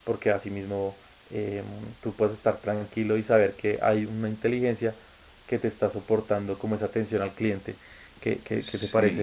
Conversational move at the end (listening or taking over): taking over